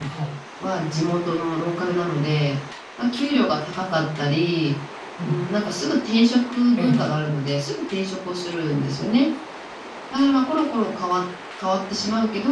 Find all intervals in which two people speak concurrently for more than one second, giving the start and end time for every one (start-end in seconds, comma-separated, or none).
none